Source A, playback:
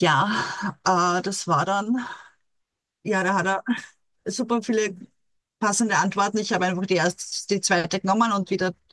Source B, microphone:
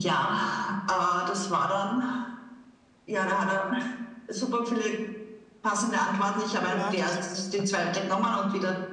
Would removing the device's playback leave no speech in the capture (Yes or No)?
No